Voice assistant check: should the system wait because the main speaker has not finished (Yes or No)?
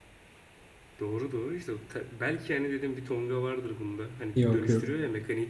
Yes